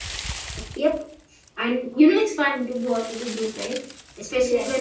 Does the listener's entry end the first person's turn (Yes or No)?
Yes